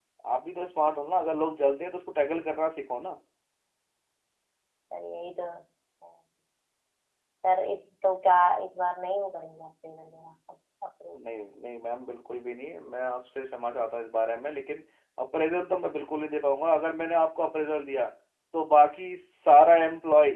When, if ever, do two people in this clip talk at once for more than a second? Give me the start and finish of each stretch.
none

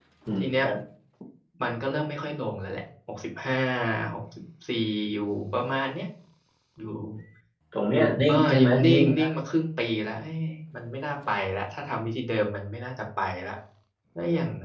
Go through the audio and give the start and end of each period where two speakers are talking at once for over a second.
7.9-9.3

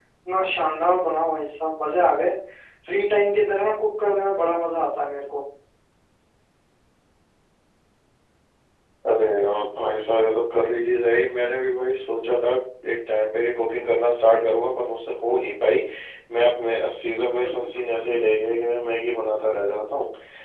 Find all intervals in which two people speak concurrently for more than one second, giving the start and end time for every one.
none

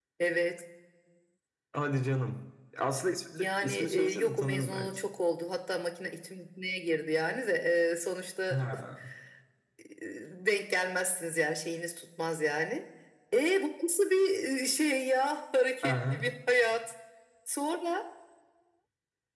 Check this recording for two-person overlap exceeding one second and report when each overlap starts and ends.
3.4-4.9

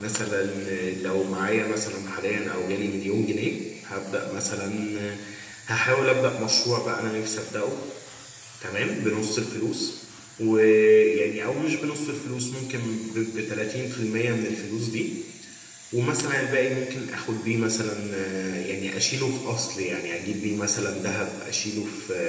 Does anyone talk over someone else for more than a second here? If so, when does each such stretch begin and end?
none

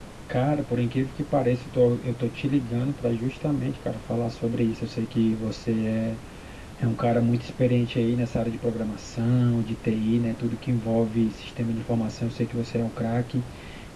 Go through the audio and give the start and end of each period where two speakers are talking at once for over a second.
none

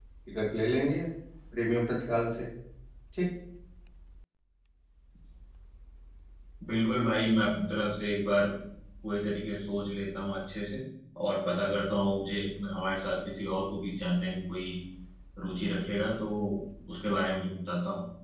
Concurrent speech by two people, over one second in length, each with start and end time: none

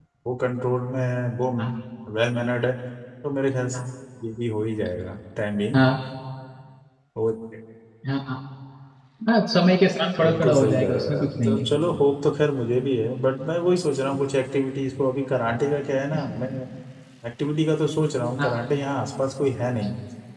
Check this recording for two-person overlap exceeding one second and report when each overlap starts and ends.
10.2-11.7

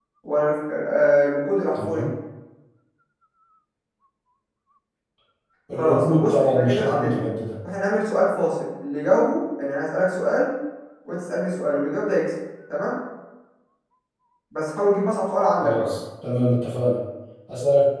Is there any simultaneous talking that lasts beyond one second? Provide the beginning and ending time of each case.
5.7-7.2

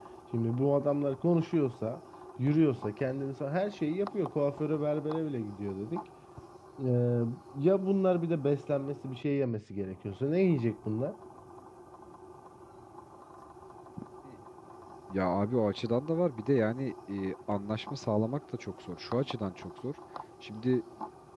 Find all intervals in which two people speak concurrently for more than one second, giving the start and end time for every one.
none

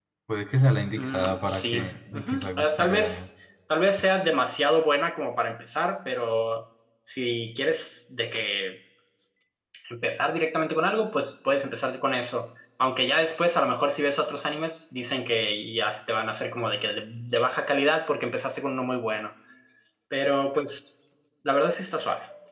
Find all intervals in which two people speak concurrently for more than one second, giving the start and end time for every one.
1.0-3.2

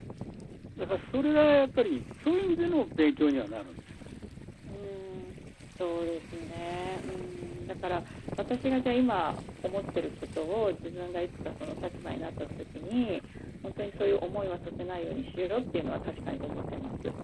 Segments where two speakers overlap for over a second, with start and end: none

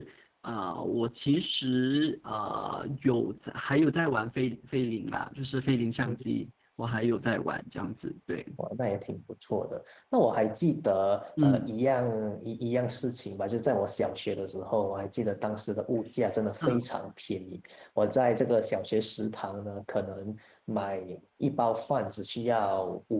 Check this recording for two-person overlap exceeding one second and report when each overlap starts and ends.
none

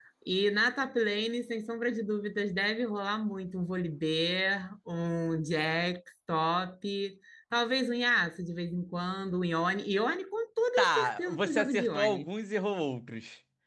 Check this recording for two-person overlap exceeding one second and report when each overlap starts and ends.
10.8-12.3

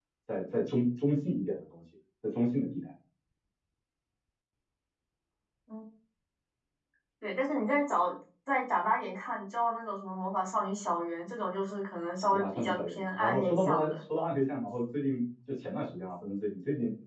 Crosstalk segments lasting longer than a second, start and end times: 12.2-13.9

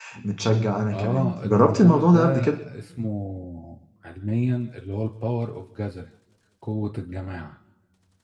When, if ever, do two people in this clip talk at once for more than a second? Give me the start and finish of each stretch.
0.9-2.6

